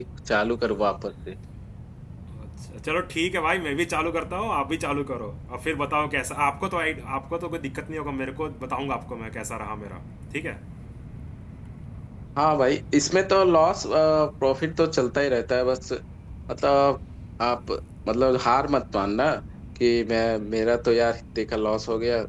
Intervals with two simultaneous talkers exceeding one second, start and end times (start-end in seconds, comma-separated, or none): none